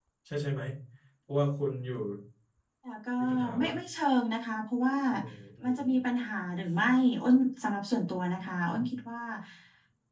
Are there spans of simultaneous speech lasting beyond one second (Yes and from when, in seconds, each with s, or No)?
No